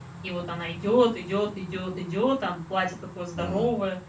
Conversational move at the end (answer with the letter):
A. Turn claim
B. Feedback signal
A